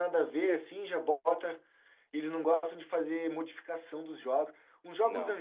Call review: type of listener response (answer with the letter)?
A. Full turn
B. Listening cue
B